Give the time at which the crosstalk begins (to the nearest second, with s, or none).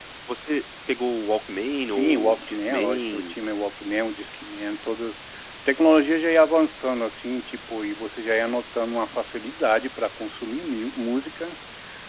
2 s